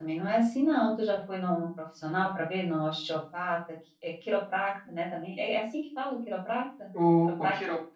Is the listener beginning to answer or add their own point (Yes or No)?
Yes